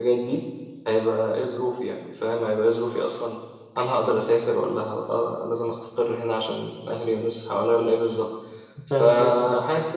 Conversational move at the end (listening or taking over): listening